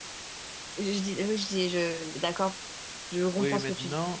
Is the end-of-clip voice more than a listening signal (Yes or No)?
Yes